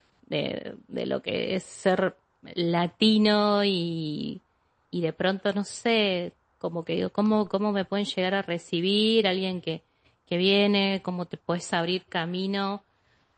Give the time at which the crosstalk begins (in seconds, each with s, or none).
none